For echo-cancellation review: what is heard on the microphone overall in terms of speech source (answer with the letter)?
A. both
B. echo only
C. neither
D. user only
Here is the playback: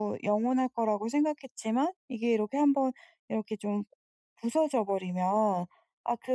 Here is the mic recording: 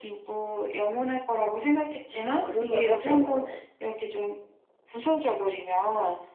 A